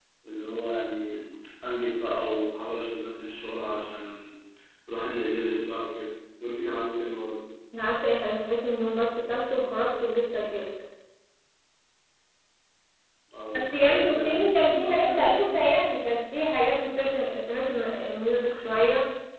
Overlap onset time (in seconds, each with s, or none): 13.6 s